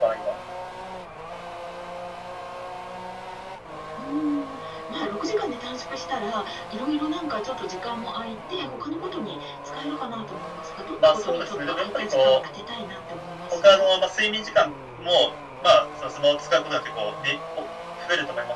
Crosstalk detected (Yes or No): Yes